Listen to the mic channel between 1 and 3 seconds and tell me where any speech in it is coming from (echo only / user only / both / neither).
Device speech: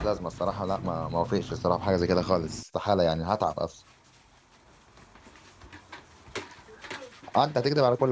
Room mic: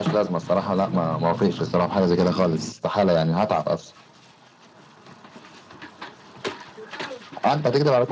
echo only